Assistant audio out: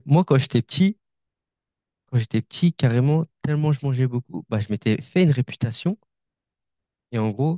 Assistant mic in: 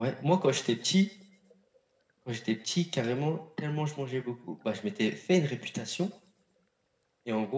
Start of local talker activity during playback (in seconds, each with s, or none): none